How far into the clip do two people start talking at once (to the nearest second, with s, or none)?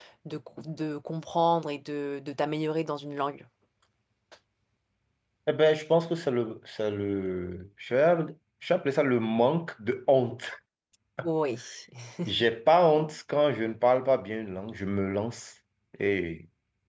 none